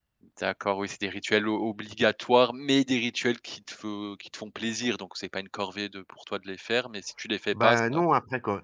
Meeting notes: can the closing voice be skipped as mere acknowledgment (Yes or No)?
No